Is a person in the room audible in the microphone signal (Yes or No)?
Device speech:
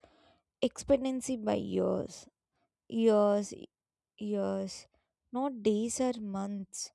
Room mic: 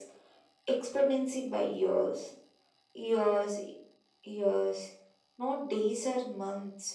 No